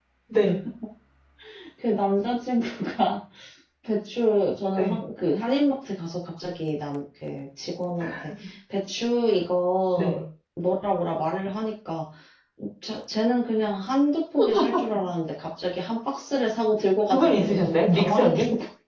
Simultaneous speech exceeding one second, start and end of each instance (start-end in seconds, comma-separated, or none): 17.1-18.3